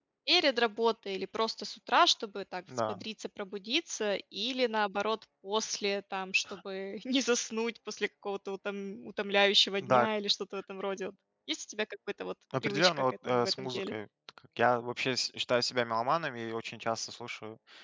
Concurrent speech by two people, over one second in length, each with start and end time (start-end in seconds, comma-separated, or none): 12.6-13.9